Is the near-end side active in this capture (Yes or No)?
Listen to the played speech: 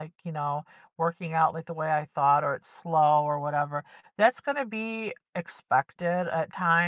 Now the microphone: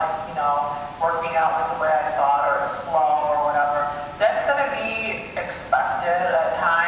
No